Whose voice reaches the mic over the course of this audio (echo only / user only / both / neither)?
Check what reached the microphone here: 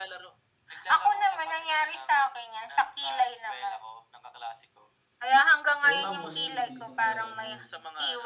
both